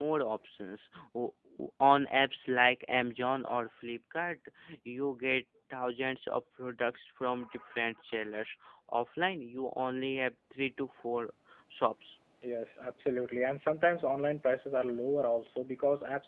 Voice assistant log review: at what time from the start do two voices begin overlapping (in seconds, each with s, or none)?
none